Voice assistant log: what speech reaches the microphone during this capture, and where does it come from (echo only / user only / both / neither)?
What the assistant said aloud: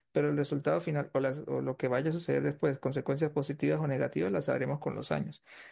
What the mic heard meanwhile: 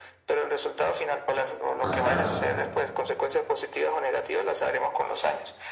both